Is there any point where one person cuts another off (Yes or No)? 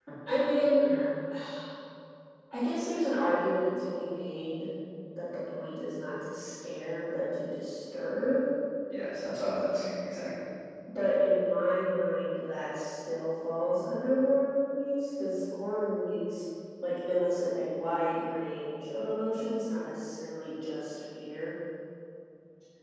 No